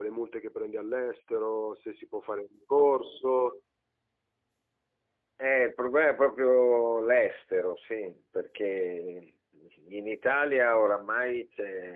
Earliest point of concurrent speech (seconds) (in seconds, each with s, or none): none